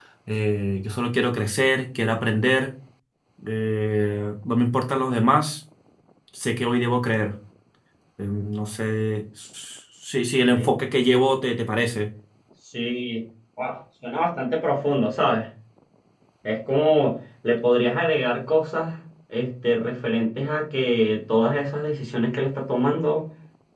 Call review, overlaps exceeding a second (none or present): none